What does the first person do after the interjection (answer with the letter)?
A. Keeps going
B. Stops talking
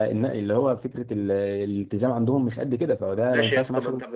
B